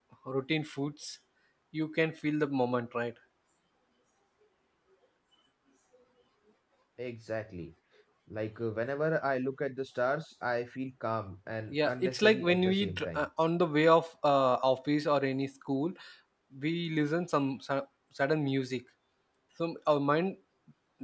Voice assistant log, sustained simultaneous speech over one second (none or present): present